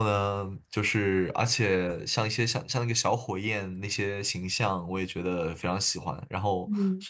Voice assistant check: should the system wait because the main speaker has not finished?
Yes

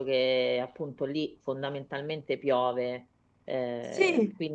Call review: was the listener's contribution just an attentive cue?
No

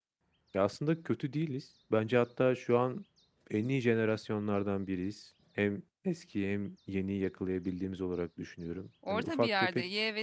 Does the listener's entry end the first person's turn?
Yes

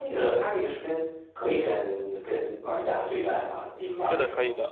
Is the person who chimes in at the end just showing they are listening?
No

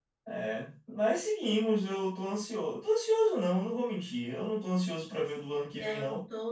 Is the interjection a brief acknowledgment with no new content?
No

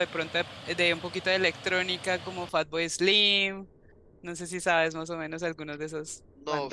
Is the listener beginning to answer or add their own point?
Yes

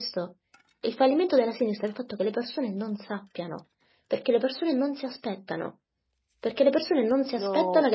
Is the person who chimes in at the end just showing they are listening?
Yes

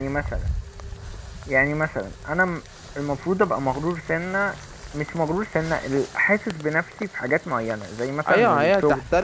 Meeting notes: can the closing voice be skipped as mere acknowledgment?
No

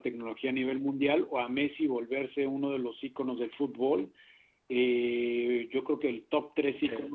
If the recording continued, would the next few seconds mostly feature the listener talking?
No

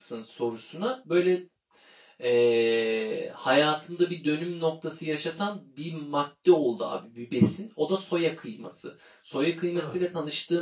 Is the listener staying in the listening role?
Yes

